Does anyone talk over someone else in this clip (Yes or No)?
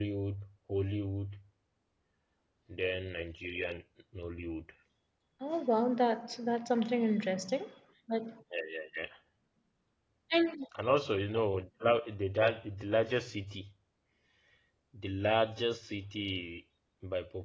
No